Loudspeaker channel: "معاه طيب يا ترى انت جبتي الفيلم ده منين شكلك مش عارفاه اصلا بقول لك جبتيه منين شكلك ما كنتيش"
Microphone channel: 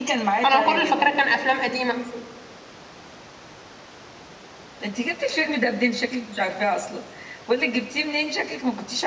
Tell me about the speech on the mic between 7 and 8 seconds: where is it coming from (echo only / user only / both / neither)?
echo only